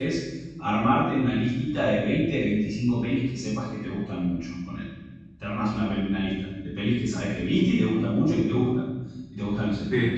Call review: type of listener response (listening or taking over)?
listening